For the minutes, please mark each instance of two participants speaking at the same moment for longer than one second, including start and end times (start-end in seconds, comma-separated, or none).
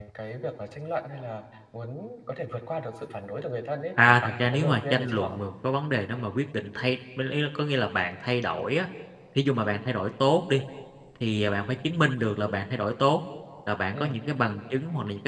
4.0-5.4